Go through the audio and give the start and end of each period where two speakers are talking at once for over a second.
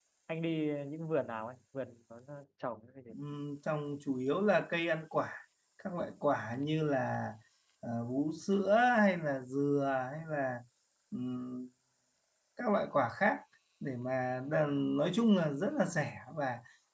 none

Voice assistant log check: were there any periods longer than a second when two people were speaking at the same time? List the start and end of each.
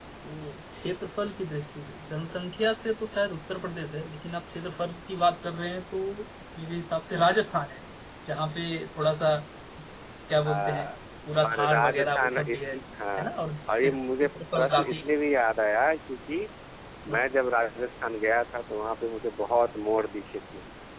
11.4-12.7, 13.8-15.1

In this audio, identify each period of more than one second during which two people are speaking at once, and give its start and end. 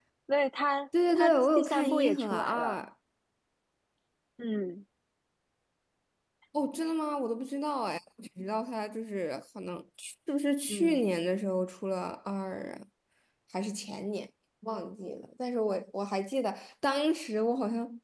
1.2-2.8

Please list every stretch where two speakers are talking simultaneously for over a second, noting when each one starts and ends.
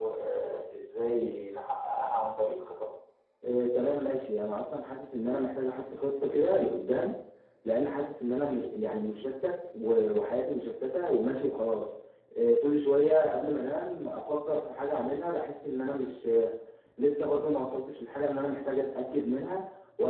none

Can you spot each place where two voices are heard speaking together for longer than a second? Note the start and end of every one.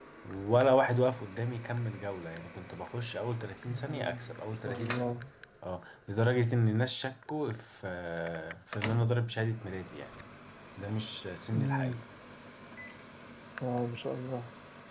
3.7-5.2

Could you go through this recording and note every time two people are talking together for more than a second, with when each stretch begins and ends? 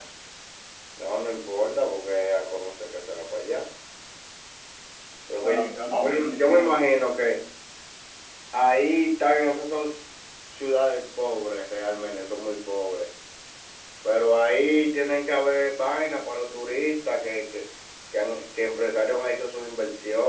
5.4-6.7

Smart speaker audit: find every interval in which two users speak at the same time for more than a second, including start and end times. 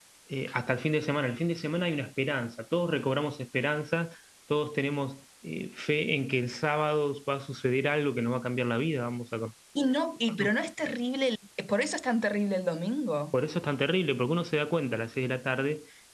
none

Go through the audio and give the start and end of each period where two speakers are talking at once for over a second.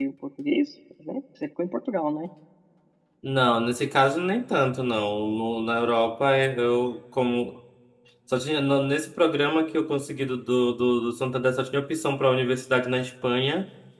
none

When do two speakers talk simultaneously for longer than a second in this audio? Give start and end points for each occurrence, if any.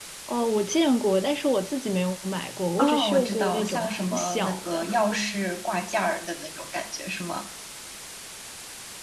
2.8-4.9

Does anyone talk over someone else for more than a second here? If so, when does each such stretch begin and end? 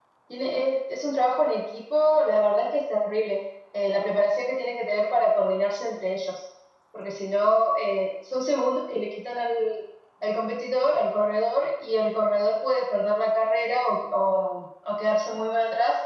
none

